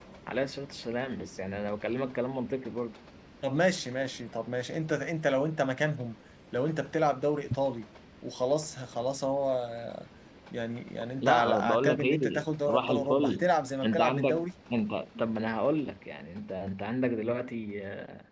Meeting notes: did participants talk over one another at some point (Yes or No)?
Yes